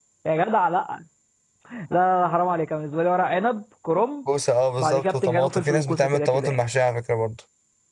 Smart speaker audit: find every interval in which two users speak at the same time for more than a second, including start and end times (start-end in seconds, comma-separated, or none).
4.8-6.6